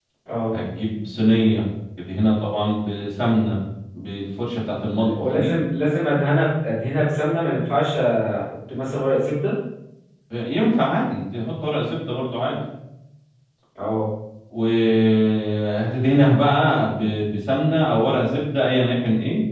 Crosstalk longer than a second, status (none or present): none